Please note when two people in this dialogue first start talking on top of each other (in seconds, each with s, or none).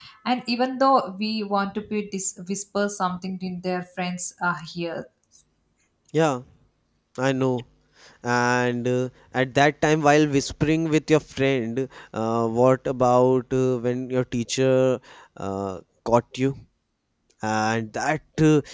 none